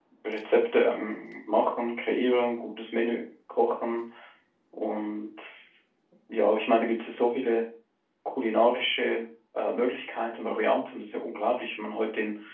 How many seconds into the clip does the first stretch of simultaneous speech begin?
none

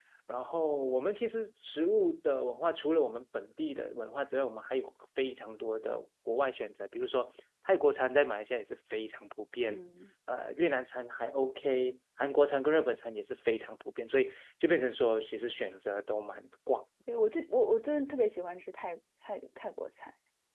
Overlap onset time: none

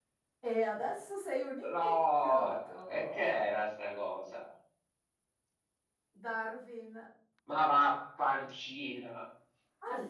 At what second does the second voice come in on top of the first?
2 s

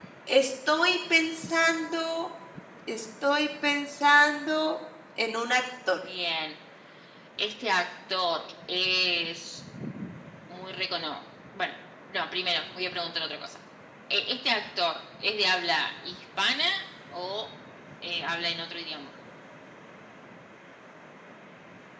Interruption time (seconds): none

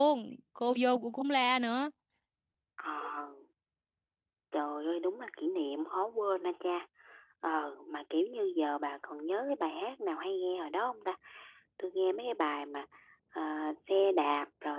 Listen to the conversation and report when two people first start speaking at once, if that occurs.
none

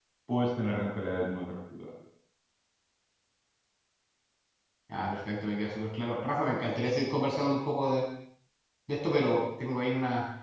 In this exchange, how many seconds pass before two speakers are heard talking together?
none

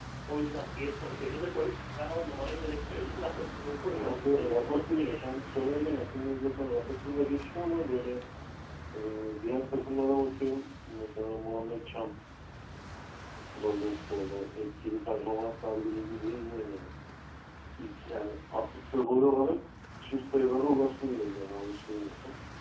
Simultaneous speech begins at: 4 s

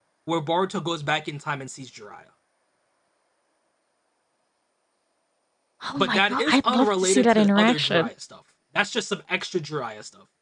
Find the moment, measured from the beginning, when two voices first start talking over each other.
6 s

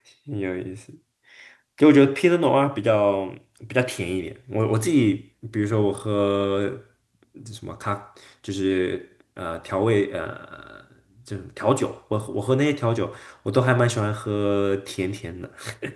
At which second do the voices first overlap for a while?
none

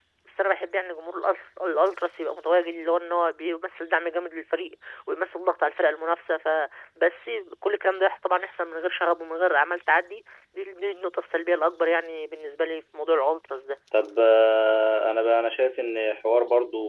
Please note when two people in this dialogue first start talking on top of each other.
none

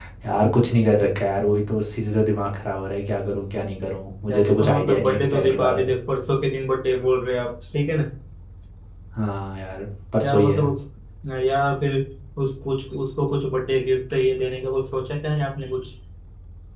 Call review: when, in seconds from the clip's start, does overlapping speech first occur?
4 s

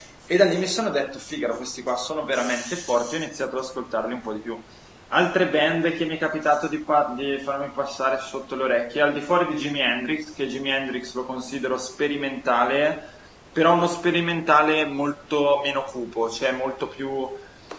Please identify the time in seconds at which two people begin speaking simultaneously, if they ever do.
none

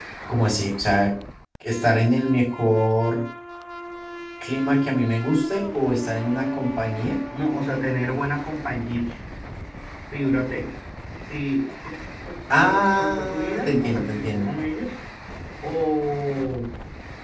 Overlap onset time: 13 s

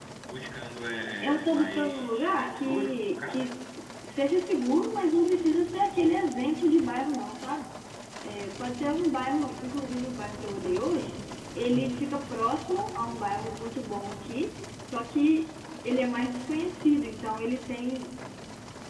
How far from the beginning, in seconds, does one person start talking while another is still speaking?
1 s

